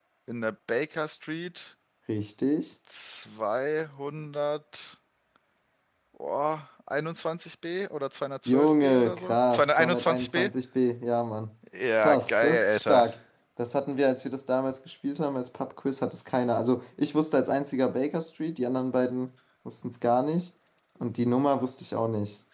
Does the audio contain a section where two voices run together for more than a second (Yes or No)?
Yes